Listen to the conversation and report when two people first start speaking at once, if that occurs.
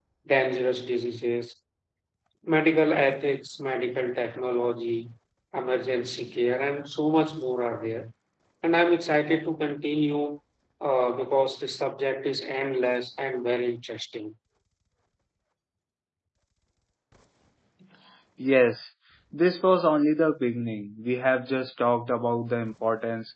none

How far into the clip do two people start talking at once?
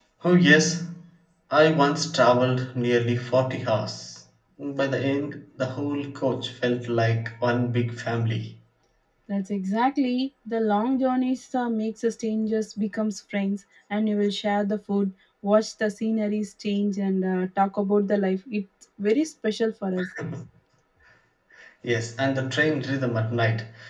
none

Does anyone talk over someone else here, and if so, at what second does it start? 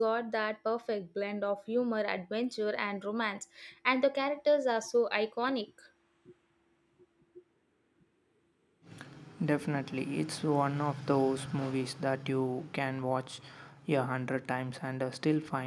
none

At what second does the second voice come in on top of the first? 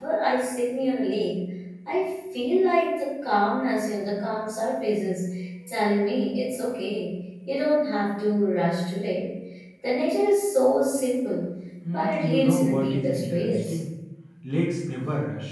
11.9 s

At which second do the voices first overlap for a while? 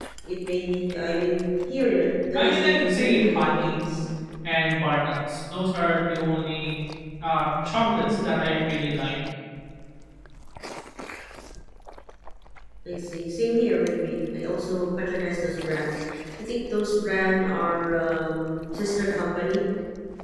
2.3 s

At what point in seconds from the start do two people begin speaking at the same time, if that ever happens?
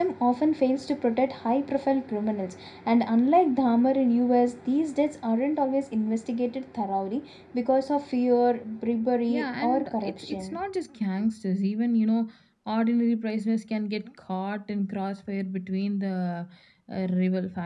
9.3 s

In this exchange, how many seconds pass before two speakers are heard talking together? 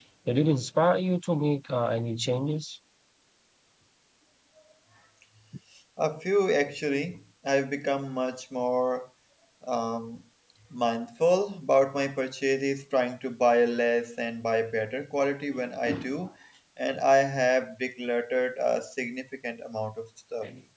none

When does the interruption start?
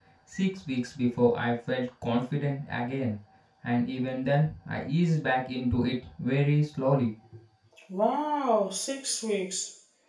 none

